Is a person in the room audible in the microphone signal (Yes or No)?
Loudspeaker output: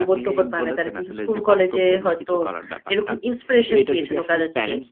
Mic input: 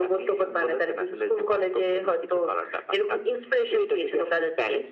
No